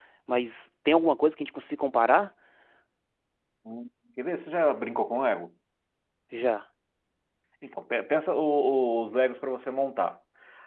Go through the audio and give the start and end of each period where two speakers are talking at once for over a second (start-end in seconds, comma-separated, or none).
none